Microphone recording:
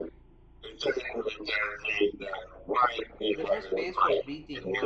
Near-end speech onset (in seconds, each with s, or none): 3.3 s